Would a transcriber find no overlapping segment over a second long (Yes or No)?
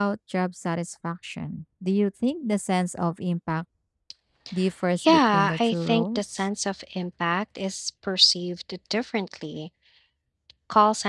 No